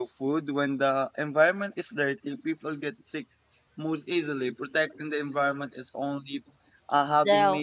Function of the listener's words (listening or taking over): listening